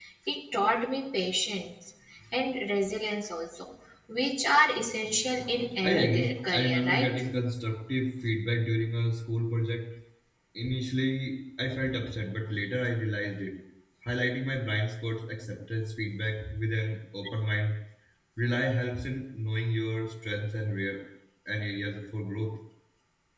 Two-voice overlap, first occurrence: 5.8 s

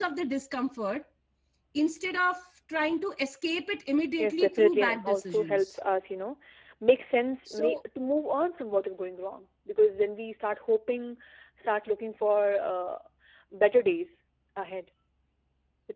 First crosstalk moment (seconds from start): 4.2 s

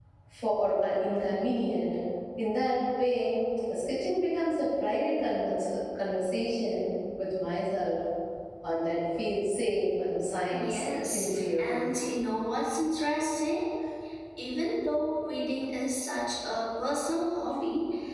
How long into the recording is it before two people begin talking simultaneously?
10.5 s

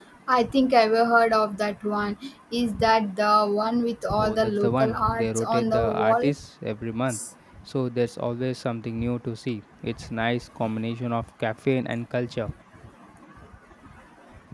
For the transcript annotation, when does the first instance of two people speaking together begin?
4.2 s

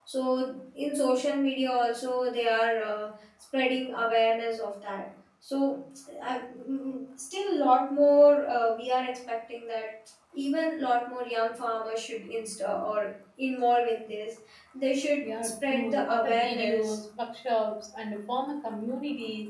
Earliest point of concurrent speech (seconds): 15.2 s

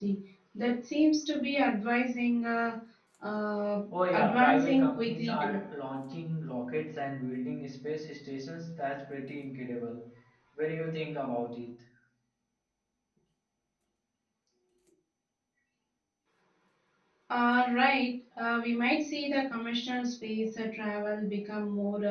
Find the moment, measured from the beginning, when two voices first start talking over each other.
3.9 s

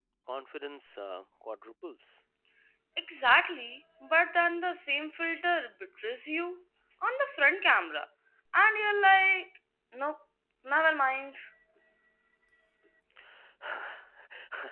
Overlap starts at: none

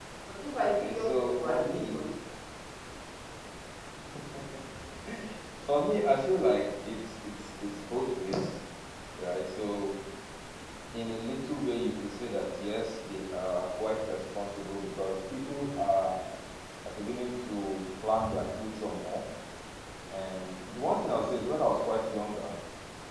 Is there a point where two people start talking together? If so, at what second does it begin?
0.6 s

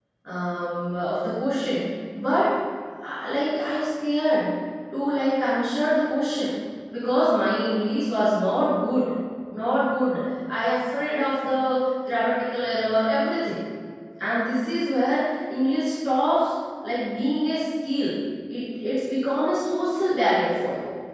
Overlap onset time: none

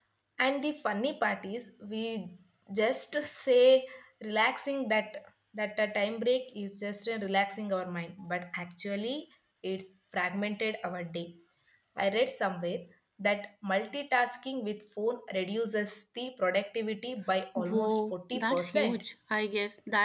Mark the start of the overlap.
17.6 s

